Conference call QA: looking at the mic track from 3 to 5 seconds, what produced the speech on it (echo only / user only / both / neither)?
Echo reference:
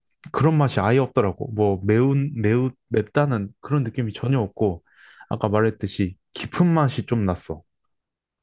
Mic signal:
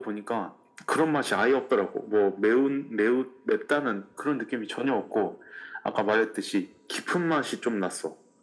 echo only